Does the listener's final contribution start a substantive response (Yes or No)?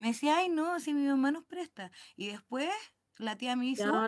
Yes